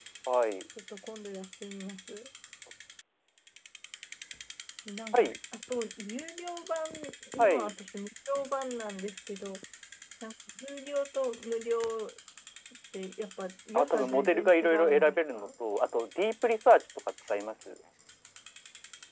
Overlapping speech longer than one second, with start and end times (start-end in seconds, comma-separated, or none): 13.7-15.5